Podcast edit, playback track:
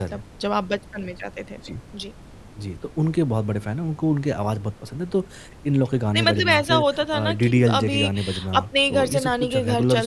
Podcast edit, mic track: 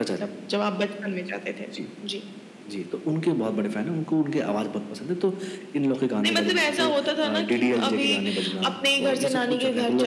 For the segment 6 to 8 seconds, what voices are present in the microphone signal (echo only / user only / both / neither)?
echo only